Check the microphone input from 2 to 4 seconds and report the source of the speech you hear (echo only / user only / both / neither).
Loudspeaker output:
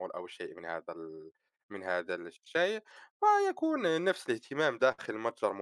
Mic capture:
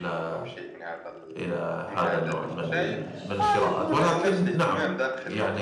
both